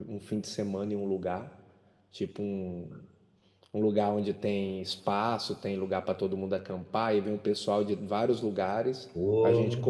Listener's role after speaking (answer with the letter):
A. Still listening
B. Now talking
A